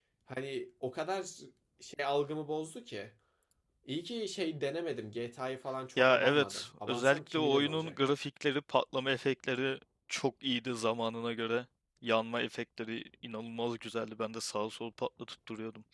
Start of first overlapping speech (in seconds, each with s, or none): 6.0 s